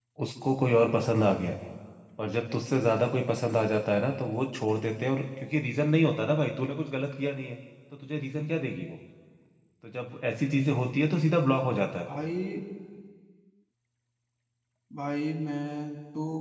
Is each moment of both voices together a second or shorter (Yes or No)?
Yes